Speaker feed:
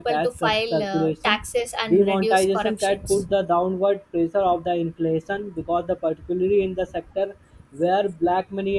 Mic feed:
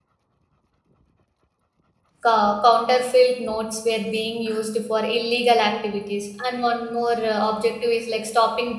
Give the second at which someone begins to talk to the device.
2.2 s

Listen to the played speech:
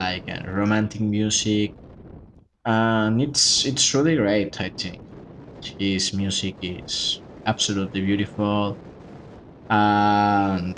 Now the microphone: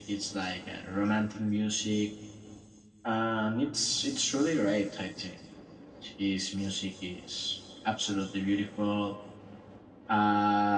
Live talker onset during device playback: none

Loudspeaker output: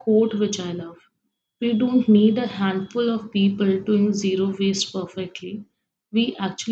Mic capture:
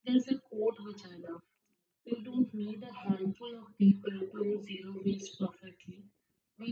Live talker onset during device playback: none

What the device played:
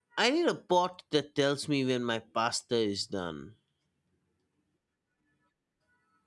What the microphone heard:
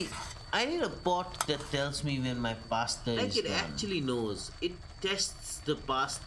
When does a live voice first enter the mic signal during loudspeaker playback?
3.1 s

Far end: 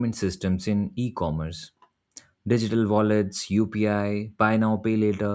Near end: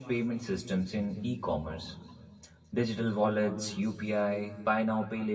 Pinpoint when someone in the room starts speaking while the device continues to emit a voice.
none

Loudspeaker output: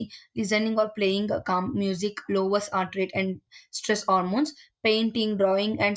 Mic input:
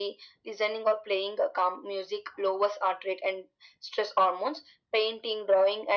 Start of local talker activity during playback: none

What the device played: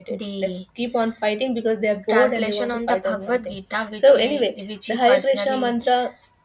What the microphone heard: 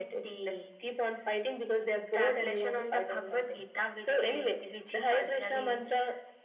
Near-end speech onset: none

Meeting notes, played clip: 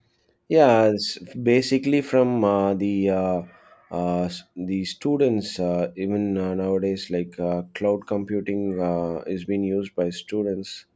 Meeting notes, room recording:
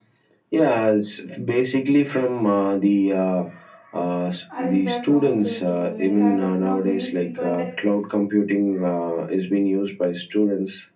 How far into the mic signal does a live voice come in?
4.6 s

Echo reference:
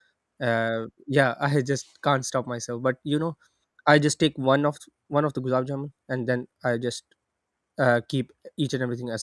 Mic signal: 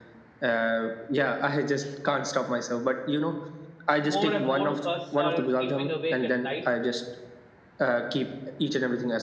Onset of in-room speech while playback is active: 4.0 s

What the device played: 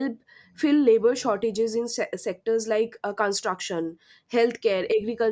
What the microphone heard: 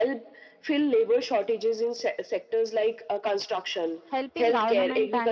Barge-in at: 4.1 s

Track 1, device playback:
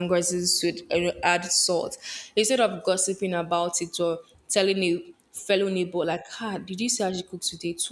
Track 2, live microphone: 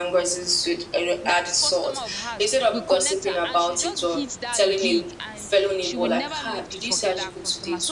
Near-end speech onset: 1.2 s

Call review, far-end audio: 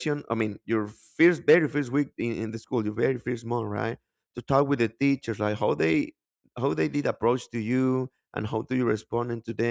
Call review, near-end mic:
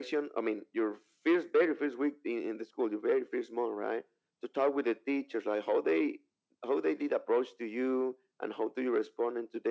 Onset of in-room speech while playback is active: none

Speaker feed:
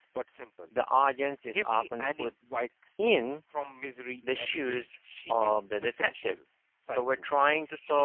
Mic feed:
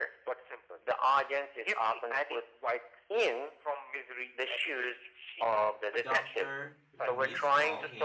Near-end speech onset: 6.0 s

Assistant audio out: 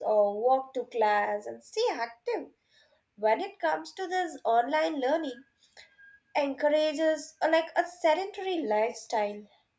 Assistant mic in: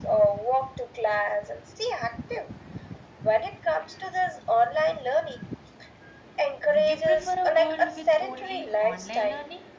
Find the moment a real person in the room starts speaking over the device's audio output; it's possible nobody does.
6.6 s

